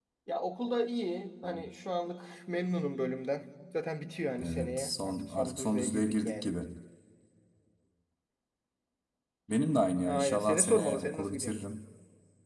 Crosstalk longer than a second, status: present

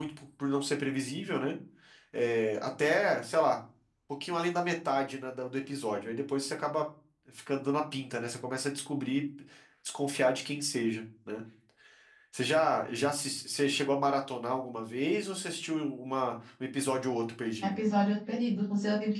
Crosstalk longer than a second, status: none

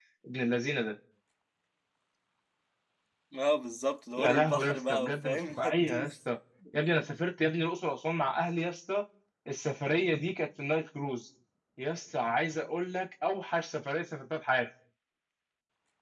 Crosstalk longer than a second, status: present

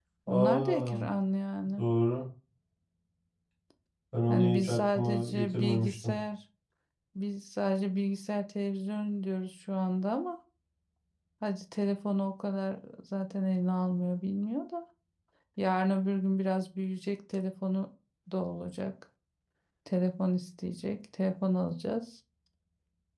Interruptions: present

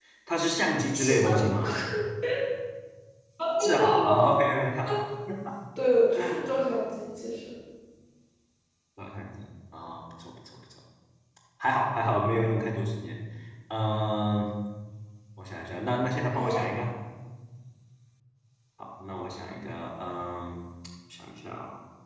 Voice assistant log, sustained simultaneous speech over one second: none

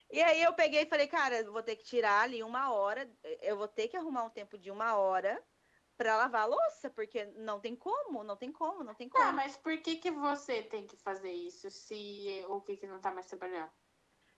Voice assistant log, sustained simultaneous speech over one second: none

